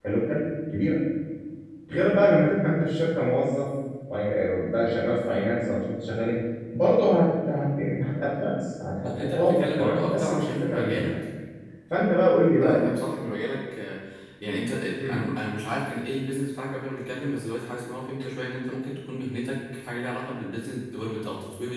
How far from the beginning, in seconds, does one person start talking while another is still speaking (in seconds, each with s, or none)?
9.0 s